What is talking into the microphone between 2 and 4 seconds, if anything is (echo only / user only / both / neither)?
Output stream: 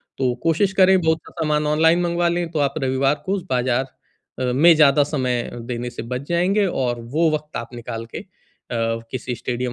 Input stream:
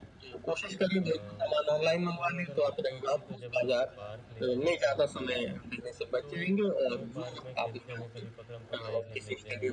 both